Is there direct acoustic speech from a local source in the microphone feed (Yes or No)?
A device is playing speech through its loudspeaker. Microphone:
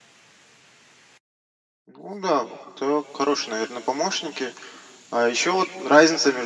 No